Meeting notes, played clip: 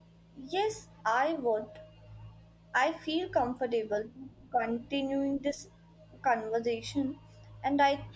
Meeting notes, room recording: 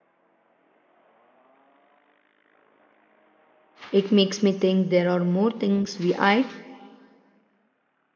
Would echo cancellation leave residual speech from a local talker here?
Yes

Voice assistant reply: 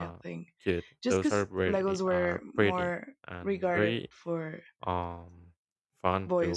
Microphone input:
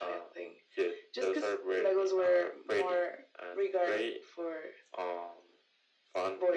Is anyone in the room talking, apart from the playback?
No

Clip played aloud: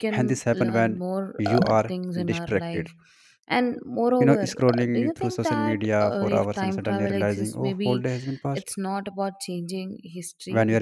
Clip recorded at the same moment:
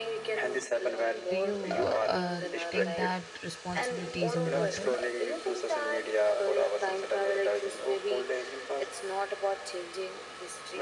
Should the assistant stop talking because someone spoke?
Yes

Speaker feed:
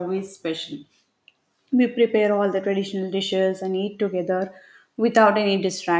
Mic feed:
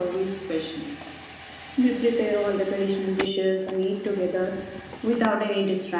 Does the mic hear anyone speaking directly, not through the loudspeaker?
No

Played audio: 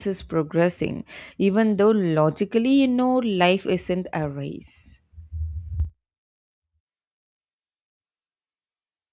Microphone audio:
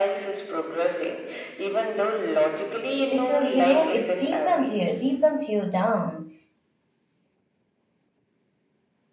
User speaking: Yes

